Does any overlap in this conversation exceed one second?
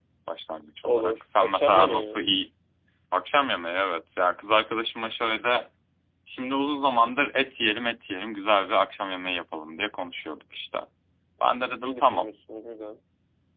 Yes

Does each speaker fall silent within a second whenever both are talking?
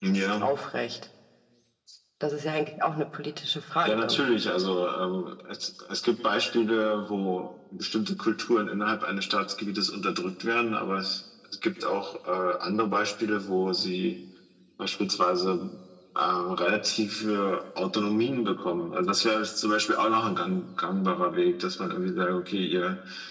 Yes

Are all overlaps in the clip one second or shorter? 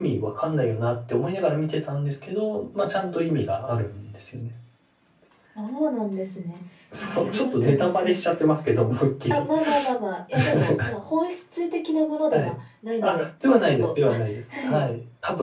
No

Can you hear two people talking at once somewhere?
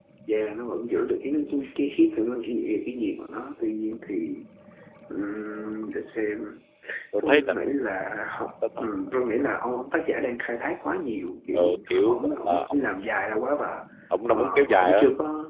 Yes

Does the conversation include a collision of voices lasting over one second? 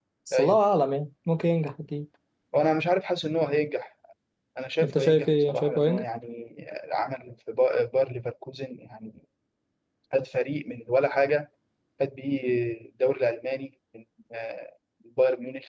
Yes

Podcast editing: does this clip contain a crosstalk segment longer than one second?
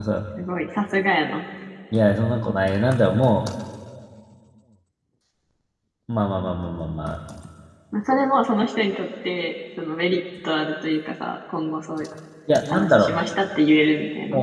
No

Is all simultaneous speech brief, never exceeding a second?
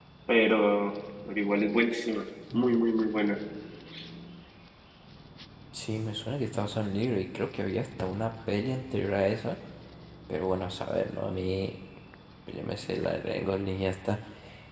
Yes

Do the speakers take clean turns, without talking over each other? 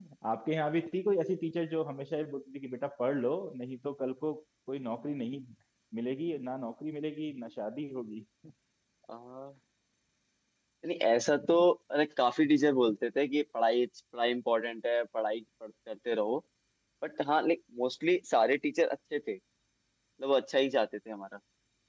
Yes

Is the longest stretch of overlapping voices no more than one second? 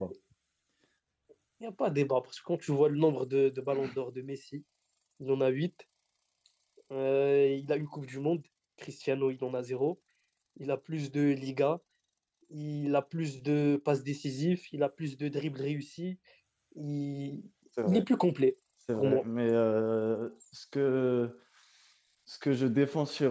Yes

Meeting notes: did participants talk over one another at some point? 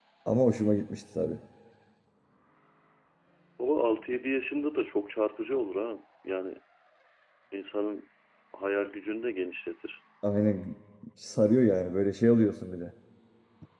No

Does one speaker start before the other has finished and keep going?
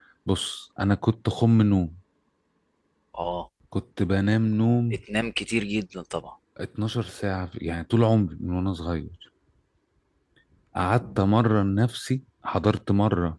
No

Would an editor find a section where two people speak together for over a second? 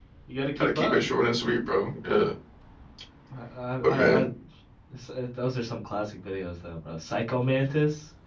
No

